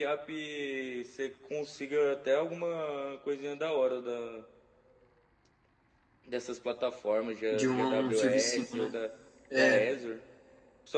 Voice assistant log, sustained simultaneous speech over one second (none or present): present